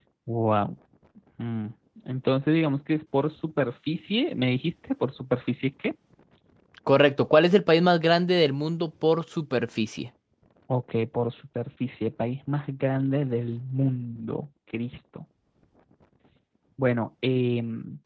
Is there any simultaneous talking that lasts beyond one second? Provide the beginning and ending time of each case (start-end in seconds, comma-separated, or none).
none